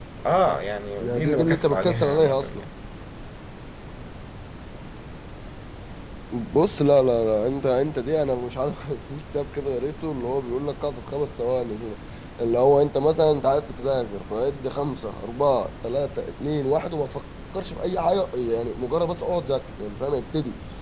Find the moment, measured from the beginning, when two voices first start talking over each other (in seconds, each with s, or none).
1.0 s